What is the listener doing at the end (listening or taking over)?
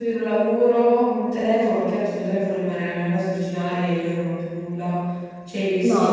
taking over